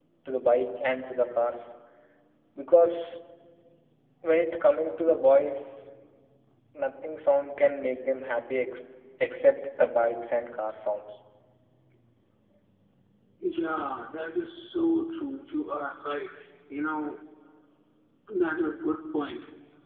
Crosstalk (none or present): none